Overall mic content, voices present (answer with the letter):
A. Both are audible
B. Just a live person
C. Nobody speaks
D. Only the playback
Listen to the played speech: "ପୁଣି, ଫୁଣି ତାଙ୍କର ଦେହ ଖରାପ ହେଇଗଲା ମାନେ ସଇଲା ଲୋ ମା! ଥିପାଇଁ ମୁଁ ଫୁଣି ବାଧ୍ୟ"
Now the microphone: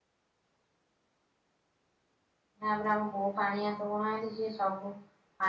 B